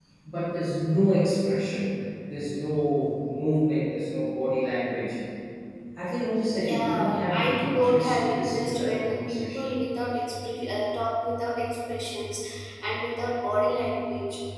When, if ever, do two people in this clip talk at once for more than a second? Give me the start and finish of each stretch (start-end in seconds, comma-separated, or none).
6.7-9.7